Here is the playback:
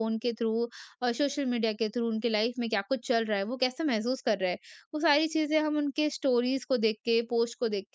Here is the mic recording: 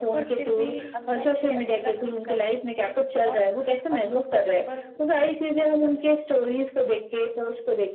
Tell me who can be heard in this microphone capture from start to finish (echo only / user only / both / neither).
both